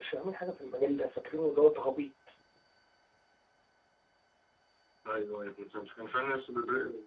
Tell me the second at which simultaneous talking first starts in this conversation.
none

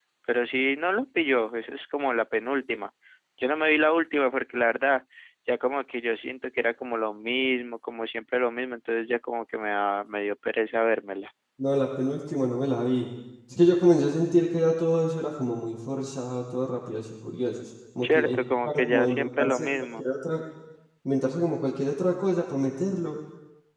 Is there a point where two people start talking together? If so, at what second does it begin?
18.0 s

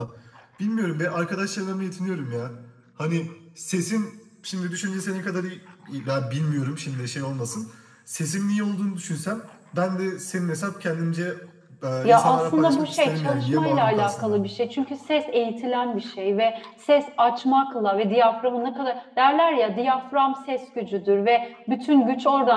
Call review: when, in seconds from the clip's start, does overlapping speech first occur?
12.1 s

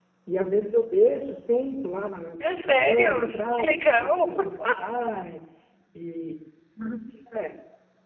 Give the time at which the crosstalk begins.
2.4 s

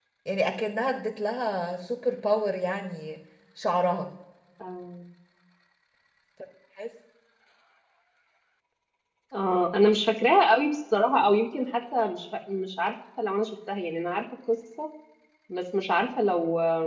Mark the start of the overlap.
none

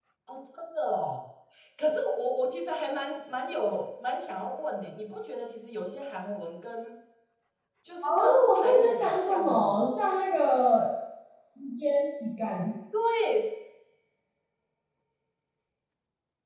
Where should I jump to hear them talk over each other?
8.0 s

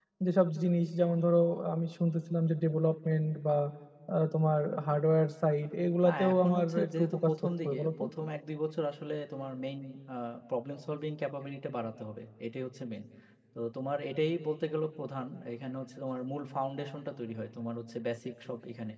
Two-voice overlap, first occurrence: 6.0 s

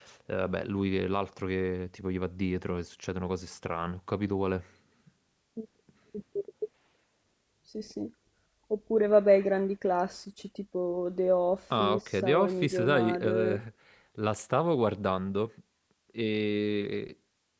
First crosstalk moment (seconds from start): 11.7 s

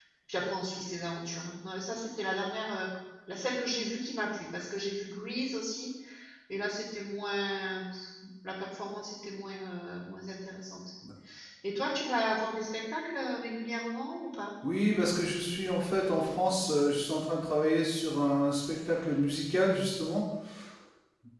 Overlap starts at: none

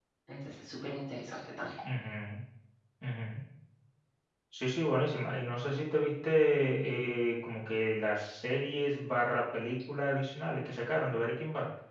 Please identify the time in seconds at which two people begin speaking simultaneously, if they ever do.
none

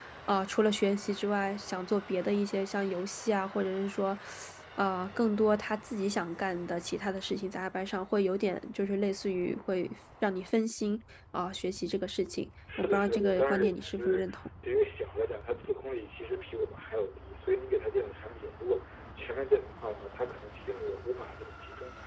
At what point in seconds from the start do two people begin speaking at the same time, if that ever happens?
12.7 s

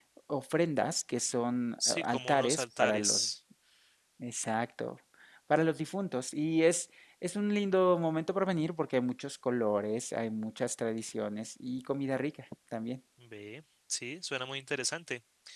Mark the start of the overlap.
1.8 s

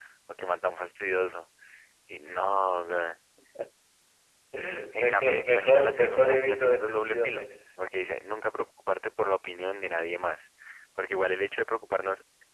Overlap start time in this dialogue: 5.0 s

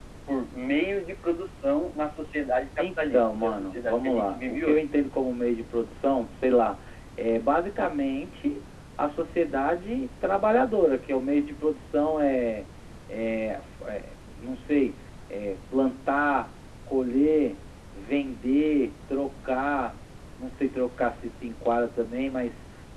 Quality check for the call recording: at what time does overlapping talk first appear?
2.8 s

